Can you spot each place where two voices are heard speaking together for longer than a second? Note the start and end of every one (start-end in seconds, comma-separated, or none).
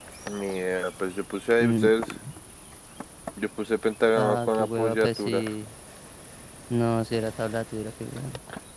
4.2-5.4